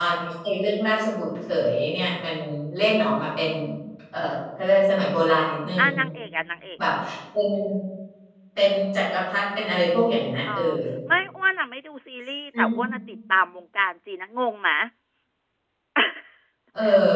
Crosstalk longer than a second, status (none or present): none